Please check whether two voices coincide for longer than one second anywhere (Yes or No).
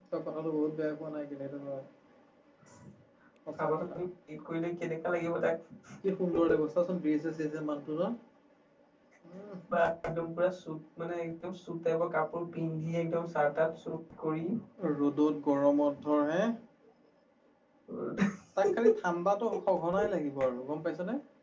No